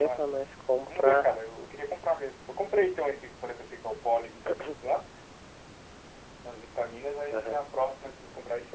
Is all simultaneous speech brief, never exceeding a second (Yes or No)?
Yes